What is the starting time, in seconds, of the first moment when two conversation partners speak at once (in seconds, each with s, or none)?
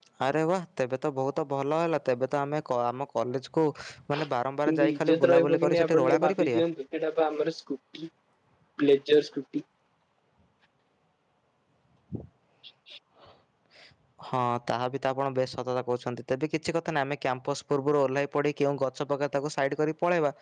4.7 s